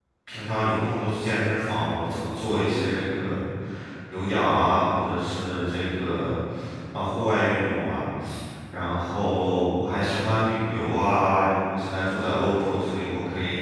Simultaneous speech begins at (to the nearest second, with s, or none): none